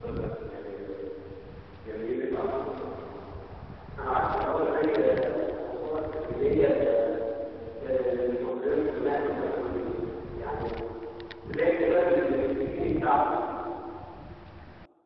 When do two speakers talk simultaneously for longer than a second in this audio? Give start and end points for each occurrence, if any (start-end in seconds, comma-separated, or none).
none